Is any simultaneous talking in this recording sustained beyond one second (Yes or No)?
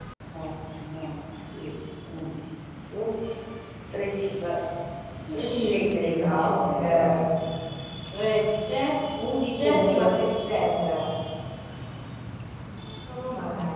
Yes